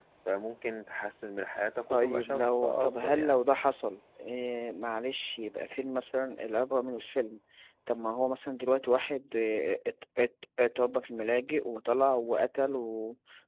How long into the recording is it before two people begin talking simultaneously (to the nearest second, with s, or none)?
2 s